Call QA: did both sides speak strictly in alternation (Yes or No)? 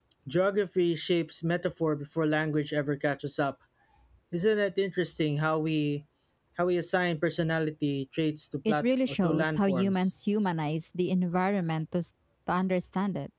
No